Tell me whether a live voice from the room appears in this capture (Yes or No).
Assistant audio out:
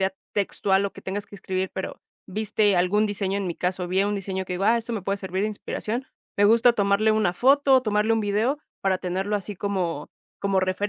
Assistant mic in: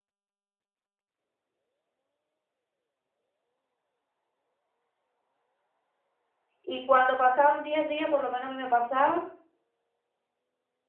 Yes